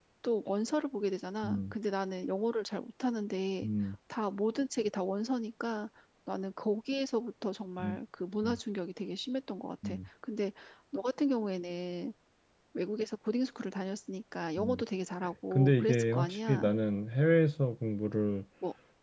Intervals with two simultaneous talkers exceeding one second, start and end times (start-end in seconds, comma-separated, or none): 15.5-16.7